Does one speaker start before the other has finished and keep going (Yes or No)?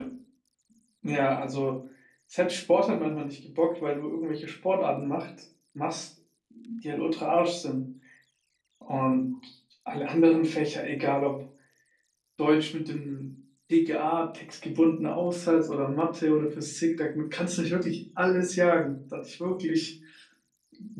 No